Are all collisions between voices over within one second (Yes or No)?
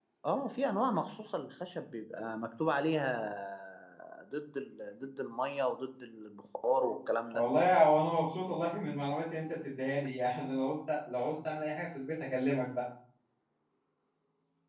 Yes